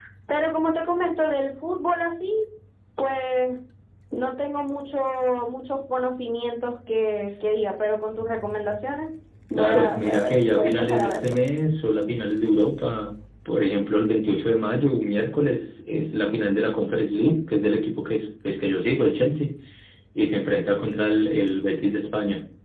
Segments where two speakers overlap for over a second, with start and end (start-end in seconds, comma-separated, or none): 9.6-11.4